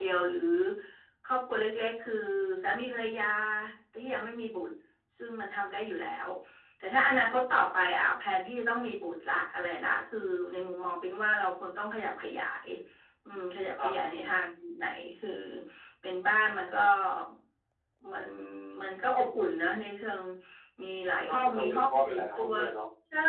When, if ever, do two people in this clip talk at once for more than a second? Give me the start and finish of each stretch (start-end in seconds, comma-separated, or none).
21.1-22.5